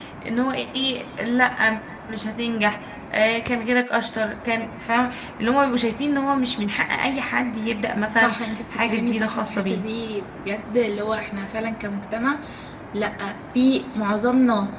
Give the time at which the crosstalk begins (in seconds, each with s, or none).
8.1 s